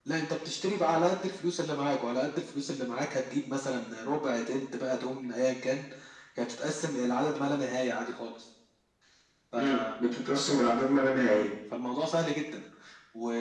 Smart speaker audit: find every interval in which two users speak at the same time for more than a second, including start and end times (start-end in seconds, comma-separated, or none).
none